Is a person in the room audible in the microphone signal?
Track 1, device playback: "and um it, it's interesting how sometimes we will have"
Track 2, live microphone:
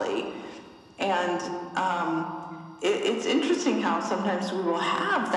No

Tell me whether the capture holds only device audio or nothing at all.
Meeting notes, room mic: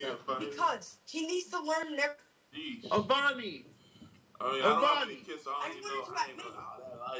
No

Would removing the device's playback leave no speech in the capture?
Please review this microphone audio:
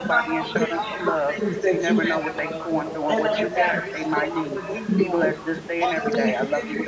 No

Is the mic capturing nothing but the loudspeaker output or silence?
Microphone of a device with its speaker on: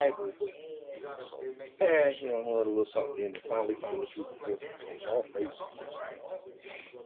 No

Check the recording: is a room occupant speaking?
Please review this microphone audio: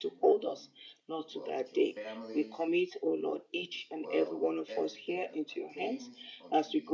Yes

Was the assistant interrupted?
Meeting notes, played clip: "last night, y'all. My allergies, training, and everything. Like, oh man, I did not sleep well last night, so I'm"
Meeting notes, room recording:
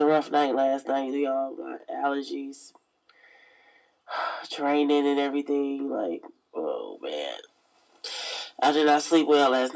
No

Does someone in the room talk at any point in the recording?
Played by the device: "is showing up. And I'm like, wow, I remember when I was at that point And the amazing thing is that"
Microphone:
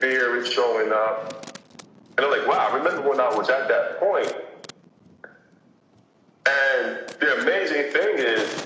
No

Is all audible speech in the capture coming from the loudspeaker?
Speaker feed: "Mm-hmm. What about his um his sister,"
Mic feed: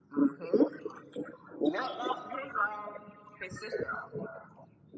Yes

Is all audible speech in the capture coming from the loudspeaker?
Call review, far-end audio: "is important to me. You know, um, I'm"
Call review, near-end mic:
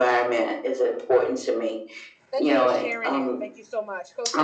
No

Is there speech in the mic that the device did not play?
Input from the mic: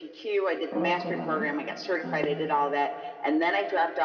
Yes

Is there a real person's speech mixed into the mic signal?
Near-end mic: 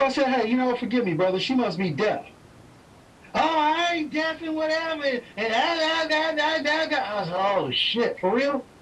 No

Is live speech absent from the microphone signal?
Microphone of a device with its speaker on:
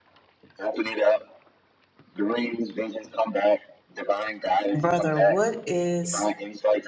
No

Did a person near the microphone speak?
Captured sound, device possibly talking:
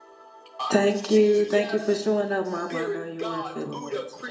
Yes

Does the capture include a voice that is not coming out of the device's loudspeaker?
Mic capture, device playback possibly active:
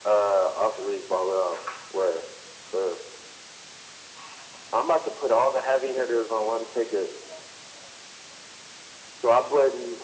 No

